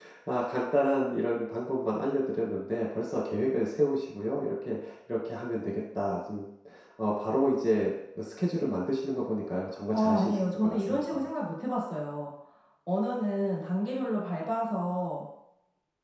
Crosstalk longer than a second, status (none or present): present